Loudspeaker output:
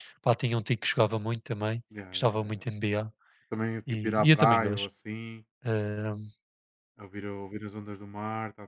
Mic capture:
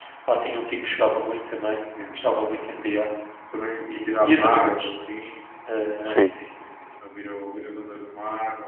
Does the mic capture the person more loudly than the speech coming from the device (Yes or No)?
Yes